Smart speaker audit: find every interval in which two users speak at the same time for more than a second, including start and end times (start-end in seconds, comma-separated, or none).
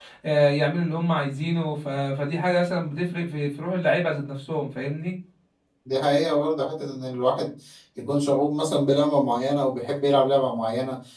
none